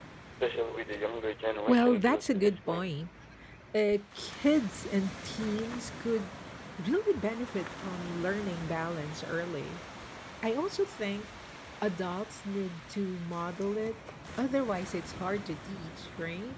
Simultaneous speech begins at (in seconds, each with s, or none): 1.7 s